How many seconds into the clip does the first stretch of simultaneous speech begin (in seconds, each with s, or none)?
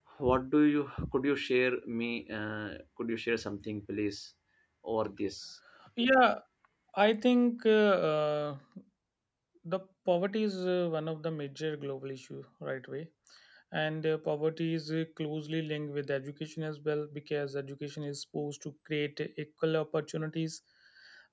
none